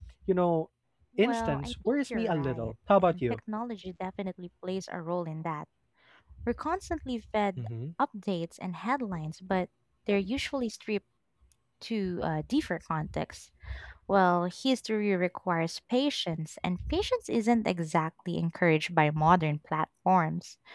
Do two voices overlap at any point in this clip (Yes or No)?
Yes